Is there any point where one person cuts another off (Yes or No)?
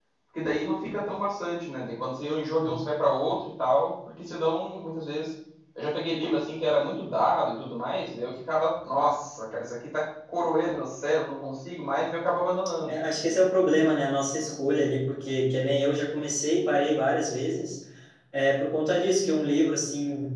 No